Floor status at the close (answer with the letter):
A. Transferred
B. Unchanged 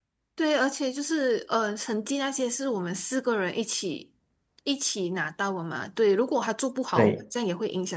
B